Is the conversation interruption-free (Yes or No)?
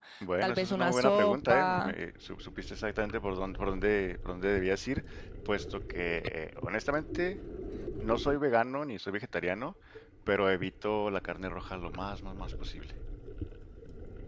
No